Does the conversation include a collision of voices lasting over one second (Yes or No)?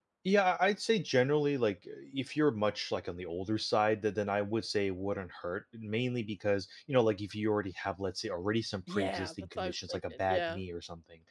Yes